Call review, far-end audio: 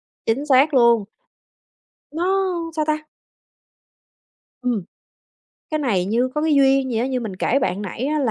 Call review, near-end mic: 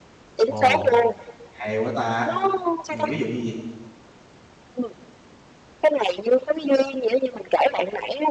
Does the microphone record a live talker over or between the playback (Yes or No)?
Yes